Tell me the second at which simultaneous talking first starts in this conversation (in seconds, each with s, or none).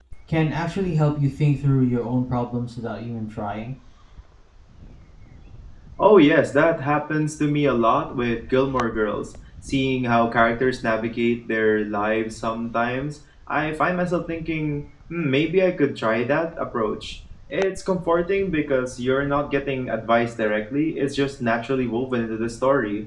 none